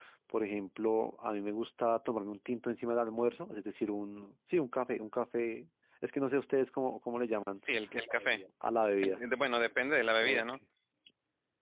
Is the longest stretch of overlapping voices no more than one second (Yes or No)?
Yes